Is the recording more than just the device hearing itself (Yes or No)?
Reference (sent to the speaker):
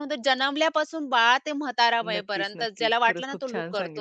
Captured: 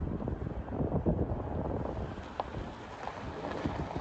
No